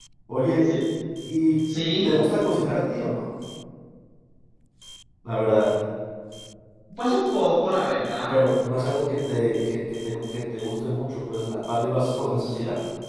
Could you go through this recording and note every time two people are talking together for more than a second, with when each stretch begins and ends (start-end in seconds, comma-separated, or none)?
none